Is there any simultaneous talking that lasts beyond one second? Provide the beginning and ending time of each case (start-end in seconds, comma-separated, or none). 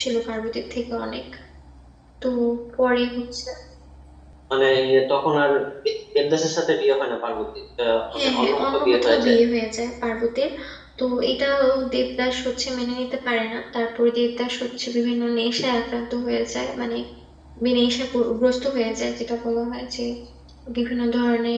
8.1-9.4